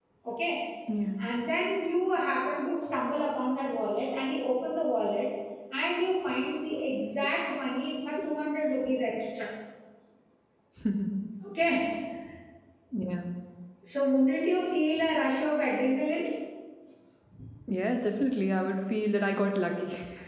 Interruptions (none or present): none